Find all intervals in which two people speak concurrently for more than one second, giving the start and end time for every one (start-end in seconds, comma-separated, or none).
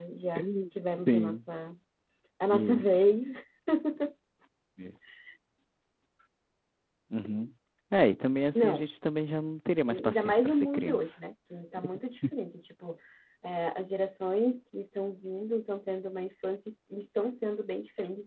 9.9-11.1